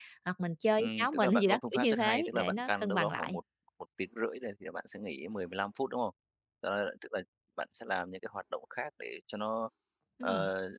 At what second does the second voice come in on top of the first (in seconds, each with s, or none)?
0.8 s